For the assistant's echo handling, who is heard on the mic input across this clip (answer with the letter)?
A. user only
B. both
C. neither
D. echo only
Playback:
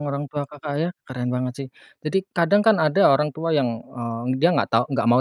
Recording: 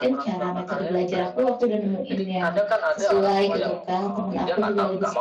B